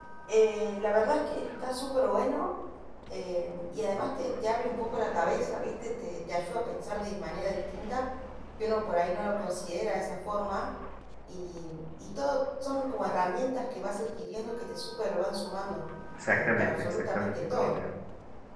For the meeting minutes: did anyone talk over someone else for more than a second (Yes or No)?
Yes